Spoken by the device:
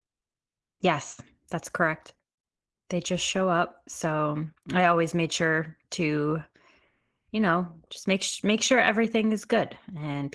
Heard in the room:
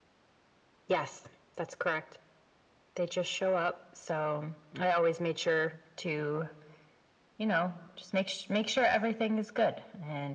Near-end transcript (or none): none